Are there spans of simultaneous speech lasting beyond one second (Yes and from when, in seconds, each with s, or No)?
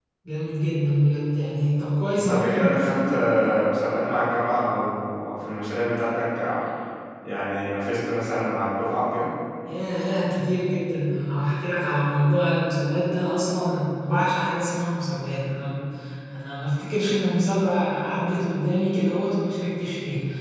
No